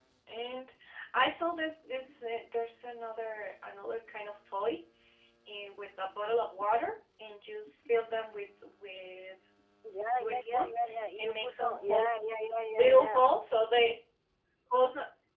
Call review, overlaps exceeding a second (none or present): present